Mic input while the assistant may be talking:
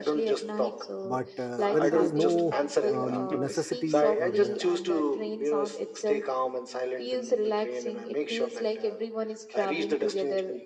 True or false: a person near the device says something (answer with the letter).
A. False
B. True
B